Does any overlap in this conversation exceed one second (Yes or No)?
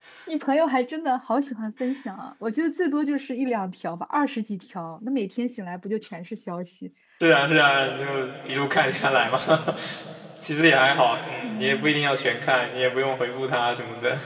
No